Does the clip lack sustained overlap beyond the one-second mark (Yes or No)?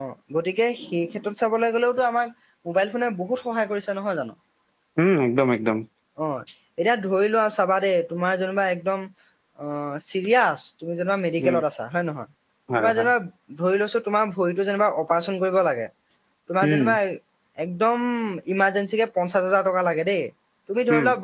Yes